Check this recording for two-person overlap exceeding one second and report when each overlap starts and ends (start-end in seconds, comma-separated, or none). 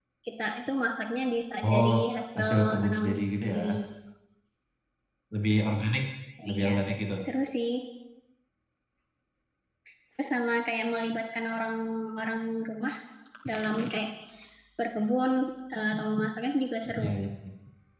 2.4-3.6